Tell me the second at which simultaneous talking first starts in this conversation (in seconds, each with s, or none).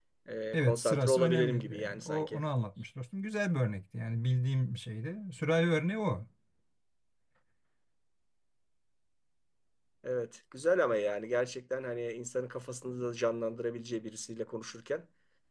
0.5 s